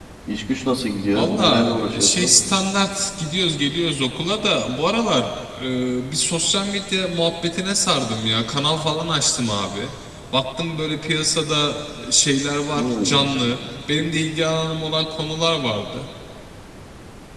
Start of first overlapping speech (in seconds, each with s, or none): 1.1 s